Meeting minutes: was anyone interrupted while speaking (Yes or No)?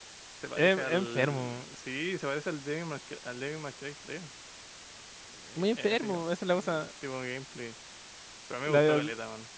Yes